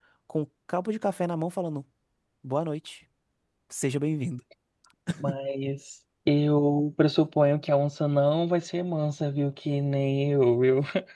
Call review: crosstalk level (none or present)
none